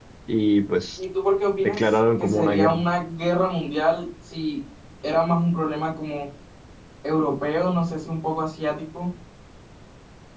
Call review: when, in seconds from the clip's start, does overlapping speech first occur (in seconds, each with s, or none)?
1.6 s